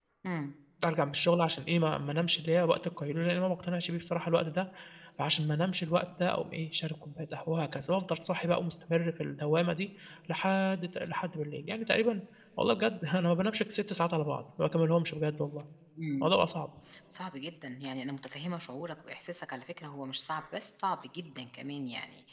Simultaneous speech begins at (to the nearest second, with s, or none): none